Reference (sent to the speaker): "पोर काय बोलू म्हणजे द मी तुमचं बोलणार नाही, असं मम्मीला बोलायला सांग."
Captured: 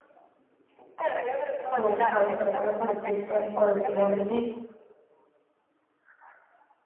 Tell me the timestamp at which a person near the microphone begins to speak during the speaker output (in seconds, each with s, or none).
1.7 s